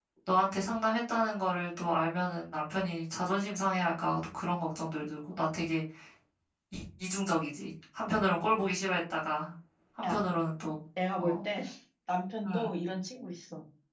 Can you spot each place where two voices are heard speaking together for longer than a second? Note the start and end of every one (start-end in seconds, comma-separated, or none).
none